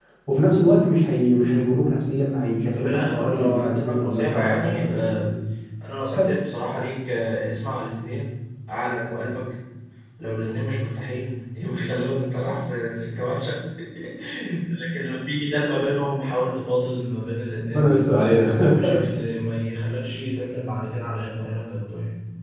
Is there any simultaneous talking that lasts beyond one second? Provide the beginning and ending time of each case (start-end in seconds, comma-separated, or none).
2.8-5.3